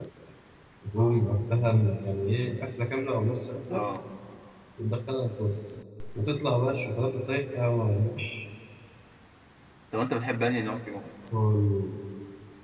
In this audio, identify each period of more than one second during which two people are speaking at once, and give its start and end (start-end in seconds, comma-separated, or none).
none